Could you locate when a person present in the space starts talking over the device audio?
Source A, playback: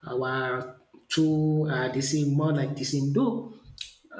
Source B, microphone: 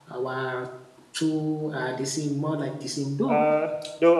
3.2 s

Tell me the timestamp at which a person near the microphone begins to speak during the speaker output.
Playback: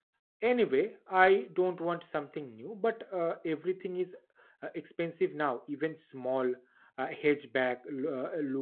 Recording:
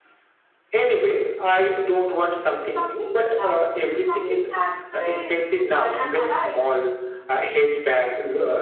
2.6 s

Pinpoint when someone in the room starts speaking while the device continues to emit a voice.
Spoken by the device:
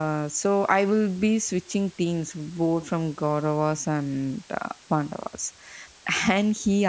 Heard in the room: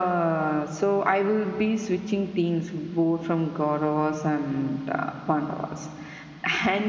none

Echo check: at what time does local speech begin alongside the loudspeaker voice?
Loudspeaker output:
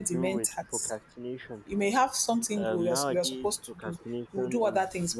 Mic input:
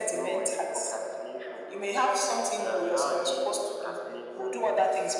none

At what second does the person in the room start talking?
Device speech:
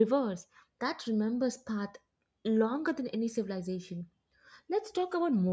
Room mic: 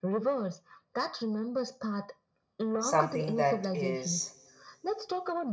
2.8 s

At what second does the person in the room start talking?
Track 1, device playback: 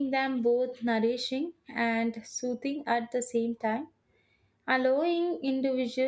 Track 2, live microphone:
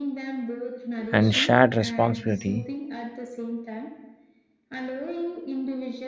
1.1 s

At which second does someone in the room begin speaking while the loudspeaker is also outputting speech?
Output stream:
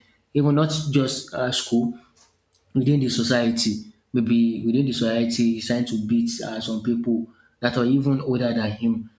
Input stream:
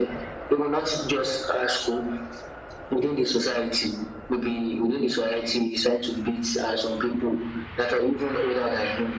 none

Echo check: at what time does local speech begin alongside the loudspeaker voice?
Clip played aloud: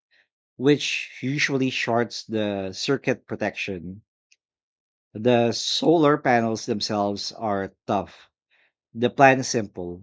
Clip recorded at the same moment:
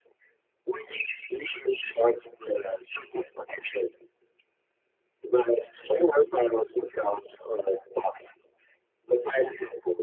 none

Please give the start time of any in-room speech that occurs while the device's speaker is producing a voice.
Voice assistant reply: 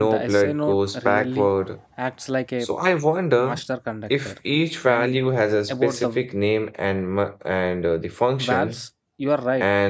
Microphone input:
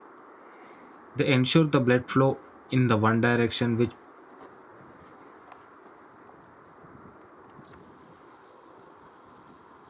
1.1 s

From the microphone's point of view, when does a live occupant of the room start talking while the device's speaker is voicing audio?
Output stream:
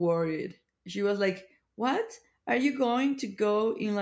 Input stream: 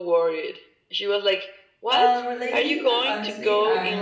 1.9 s

